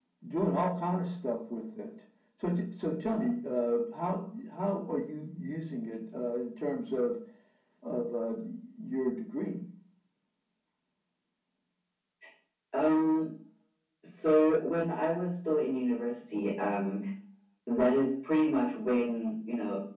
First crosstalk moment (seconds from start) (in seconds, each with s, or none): none